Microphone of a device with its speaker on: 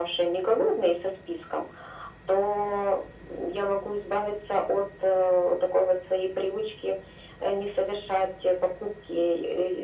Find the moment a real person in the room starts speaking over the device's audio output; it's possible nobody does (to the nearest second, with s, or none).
none